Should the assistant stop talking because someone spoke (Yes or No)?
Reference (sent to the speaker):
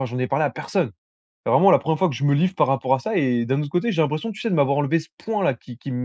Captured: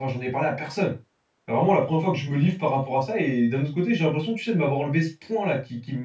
No